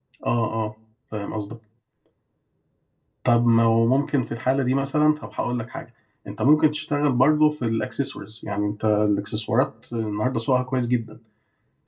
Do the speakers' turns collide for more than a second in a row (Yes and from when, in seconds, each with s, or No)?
No